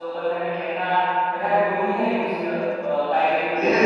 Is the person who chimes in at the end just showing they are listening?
No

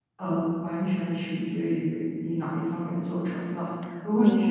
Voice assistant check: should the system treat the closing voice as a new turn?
No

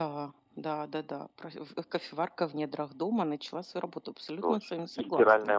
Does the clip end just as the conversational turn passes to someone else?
Yes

